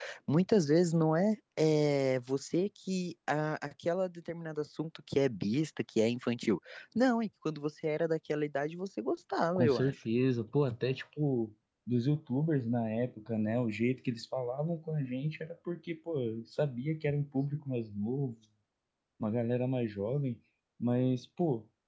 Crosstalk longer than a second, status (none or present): none